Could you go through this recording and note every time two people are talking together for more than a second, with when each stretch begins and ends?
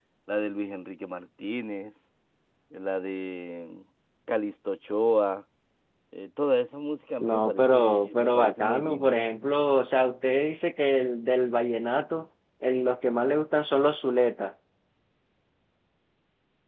7.2-9.2

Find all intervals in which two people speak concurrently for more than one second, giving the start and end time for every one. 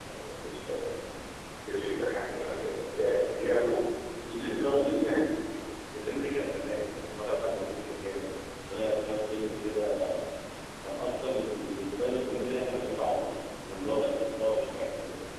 none

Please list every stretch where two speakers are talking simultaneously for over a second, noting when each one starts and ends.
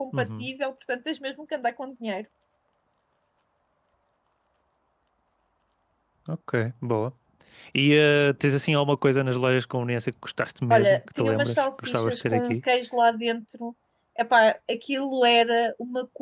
10.7-12.6

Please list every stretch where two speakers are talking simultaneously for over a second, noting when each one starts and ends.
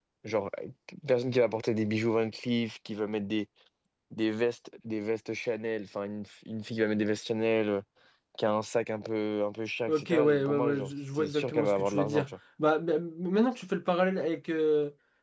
9.9-12.3

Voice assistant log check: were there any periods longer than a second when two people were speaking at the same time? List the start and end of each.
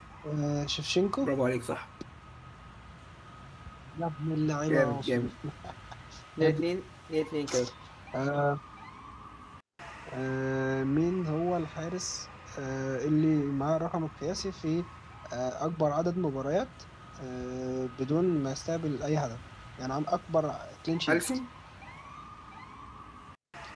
none

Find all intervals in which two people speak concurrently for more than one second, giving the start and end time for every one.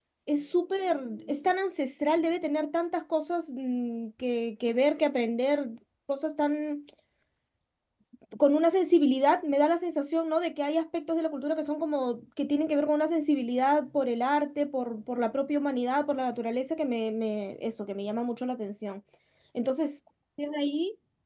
none

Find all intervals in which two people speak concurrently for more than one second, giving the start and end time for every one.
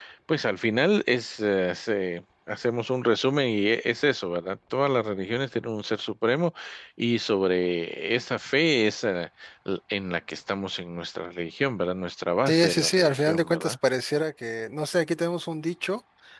12.5-13.8

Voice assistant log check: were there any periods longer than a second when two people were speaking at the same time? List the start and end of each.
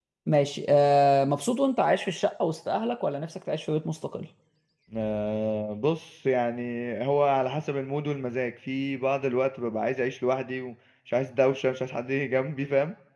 none

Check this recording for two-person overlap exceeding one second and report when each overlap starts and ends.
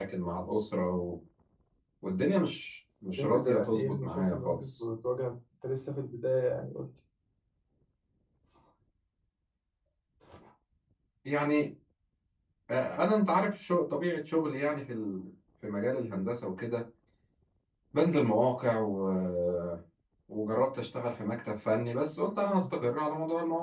3.2-4.8

